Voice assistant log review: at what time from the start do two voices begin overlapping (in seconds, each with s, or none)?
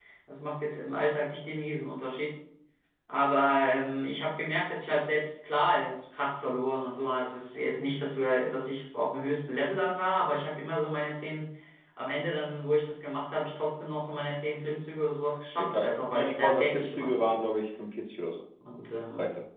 15.6 s